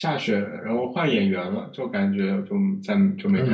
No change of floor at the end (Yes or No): No